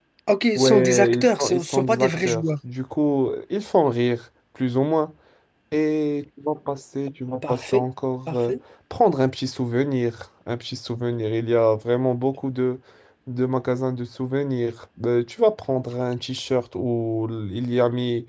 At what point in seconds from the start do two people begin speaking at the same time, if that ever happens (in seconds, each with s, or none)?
0.6 s